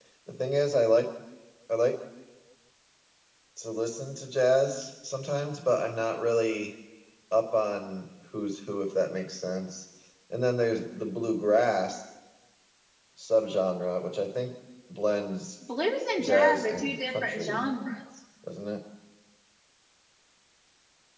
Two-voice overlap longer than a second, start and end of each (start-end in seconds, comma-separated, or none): 16.2-17.7